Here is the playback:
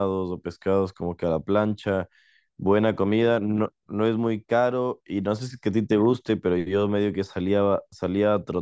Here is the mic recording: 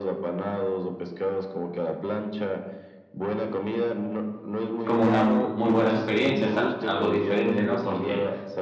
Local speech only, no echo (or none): como una muy buena experiencia, es al- algo diferente, ¿no? Porque